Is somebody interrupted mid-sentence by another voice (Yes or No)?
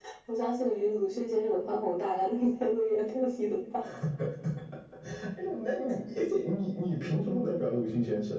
No